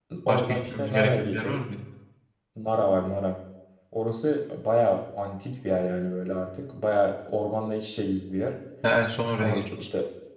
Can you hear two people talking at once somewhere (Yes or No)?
Yes